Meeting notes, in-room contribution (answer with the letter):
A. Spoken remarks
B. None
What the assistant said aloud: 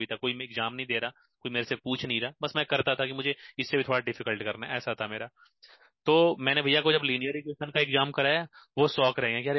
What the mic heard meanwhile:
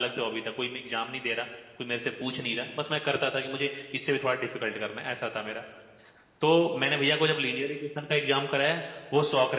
B